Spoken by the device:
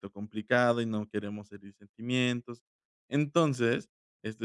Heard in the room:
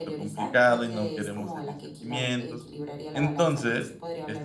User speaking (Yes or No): Yes